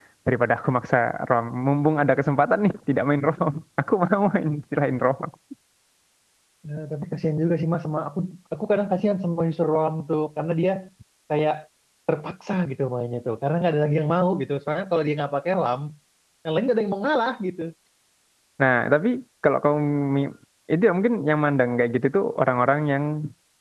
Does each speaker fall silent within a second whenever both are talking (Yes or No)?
Yes